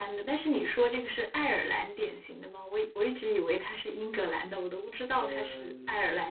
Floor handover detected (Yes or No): Yes